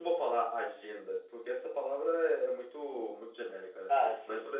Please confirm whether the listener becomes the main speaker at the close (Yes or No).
No